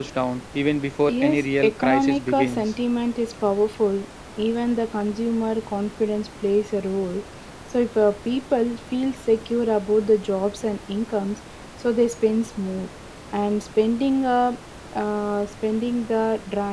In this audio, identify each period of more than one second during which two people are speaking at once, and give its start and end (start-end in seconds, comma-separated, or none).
1.1-2.7